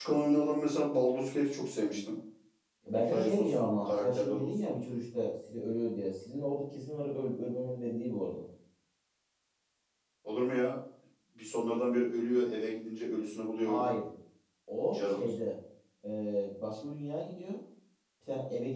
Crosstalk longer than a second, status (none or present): present